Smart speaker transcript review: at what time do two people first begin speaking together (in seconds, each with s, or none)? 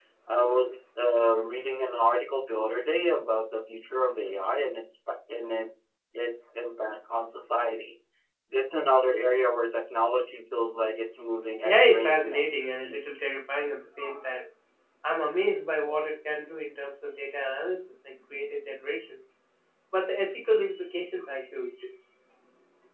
11.6 s